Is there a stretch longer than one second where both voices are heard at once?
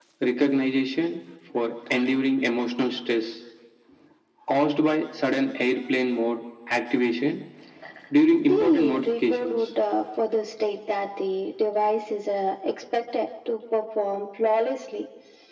Yes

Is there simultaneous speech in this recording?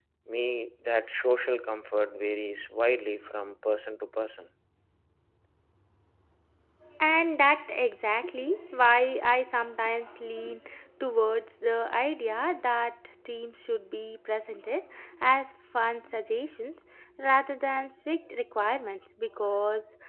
No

